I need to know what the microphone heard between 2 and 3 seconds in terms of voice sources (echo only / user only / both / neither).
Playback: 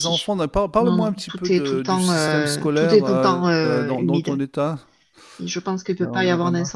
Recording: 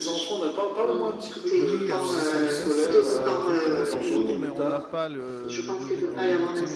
both